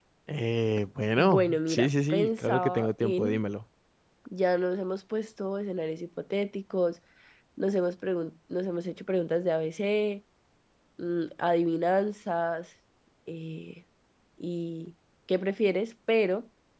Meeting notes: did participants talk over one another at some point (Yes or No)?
Yes